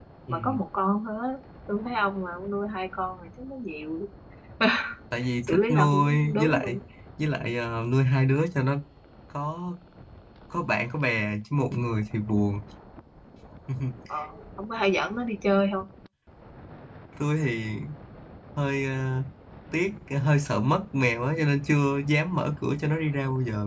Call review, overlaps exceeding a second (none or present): present